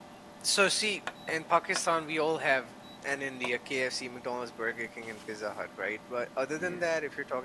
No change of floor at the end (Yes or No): Yes